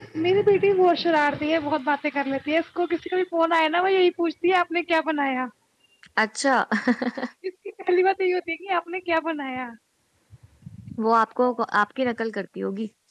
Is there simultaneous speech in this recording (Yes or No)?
No